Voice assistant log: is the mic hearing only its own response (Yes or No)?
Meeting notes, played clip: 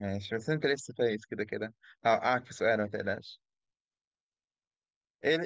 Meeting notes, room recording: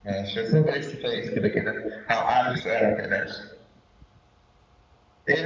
Yes